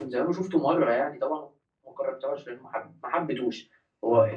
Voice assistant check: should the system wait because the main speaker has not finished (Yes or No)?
Yes